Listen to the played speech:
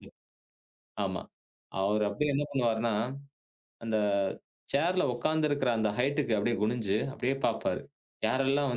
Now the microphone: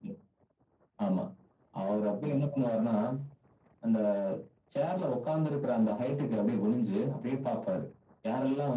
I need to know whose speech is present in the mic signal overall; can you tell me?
echo only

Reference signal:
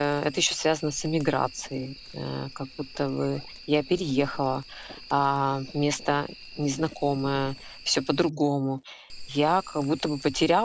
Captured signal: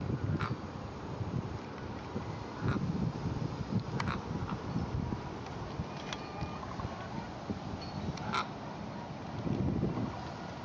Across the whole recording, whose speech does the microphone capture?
neither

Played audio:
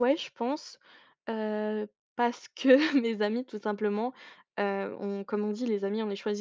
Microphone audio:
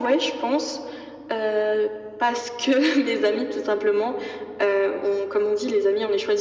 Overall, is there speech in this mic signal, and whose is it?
echo only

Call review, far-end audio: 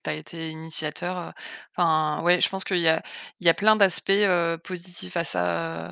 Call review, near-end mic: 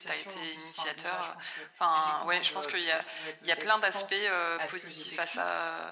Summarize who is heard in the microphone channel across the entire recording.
both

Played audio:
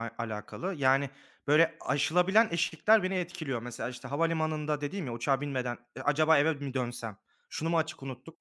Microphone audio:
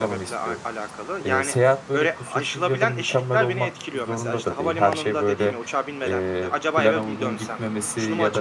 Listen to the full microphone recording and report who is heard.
both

